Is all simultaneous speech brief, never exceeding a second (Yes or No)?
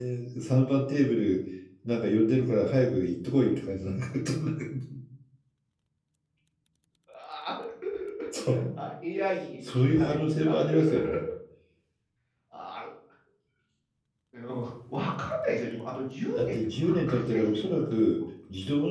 No